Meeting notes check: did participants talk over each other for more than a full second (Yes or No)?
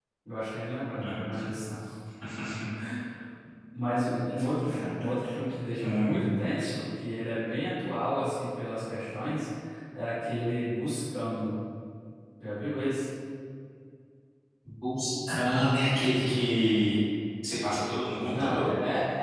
No